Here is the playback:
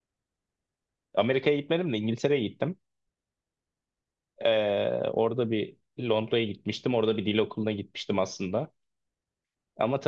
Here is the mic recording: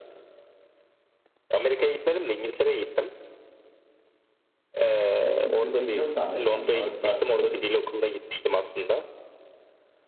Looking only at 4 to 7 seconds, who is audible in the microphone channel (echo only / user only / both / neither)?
both